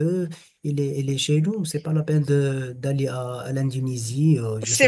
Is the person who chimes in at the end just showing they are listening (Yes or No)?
No